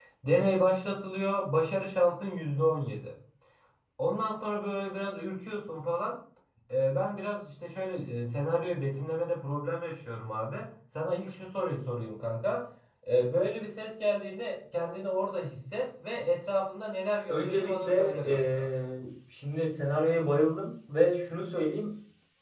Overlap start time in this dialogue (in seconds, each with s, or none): 17.3 s